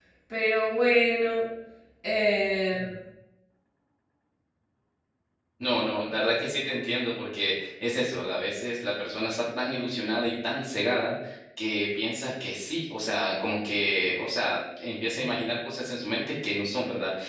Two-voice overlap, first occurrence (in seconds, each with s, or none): none